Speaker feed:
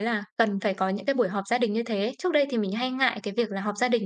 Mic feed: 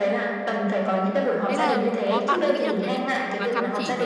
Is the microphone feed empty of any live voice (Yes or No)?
No